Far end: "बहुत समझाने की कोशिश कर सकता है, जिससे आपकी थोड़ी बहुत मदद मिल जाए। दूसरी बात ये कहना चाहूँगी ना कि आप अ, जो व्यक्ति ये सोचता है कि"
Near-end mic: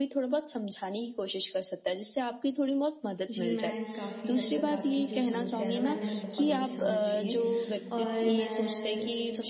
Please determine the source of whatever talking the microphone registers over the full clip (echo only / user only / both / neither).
both